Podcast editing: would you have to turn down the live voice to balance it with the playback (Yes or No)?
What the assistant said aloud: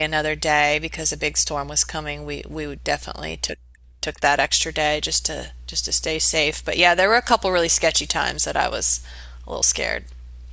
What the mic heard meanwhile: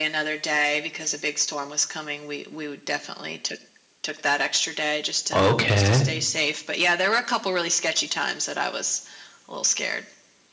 Yes